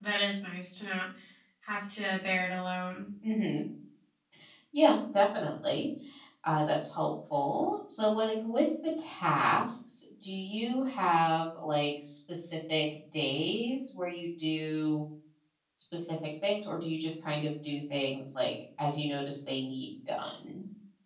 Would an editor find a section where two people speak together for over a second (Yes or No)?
No